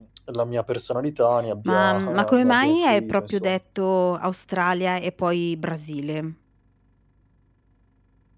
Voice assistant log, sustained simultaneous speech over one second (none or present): present